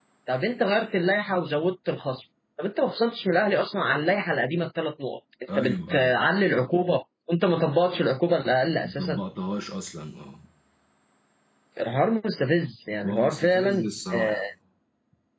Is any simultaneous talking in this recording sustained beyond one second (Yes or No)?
Yes